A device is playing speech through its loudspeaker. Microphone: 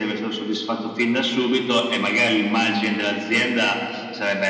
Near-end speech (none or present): none